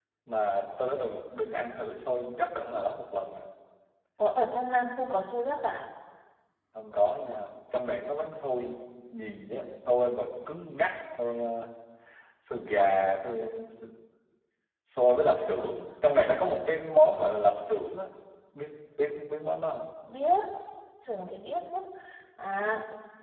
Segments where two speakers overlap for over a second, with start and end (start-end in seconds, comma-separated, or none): none